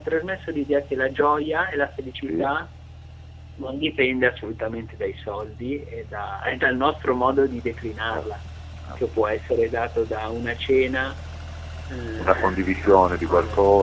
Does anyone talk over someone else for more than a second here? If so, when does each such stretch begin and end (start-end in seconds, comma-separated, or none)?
none